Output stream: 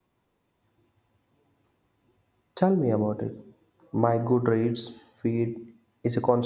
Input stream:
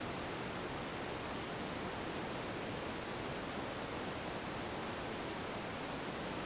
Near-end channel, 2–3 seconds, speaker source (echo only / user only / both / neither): neither